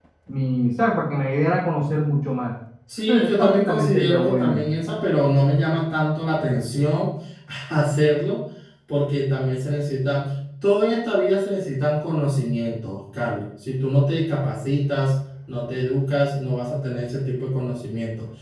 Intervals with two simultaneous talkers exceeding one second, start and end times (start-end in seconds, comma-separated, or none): 3.1-4.6